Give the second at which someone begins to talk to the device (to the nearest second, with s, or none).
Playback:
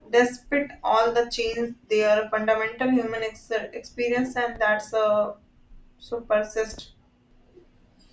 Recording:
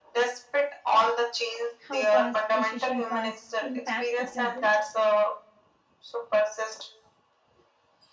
2 s